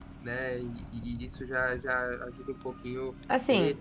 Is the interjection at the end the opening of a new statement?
Yes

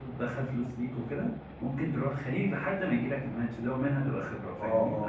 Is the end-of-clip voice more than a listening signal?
Yes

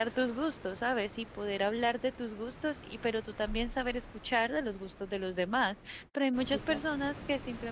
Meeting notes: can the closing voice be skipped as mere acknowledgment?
Yes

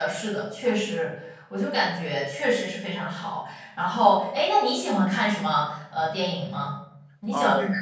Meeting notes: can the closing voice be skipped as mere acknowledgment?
No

